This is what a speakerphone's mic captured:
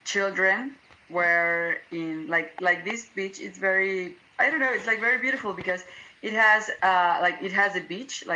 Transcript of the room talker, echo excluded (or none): none